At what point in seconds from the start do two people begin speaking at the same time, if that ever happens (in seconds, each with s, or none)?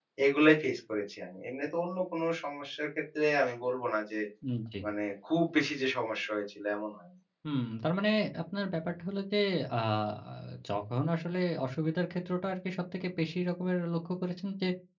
none